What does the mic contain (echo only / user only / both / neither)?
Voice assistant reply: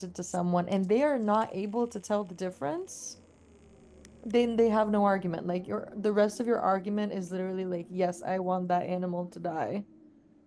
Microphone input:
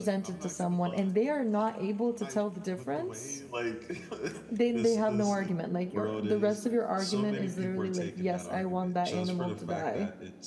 both